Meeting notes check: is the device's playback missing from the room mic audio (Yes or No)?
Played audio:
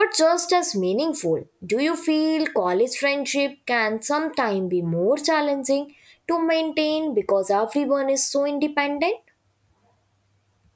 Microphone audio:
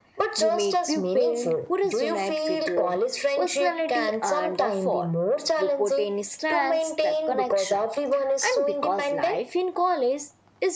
No